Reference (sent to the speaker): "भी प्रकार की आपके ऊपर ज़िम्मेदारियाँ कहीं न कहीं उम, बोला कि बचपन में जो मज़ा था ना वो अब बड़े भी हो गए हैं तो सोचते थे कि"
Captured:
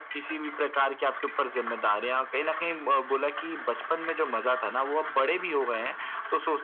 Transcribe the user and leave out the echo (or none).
none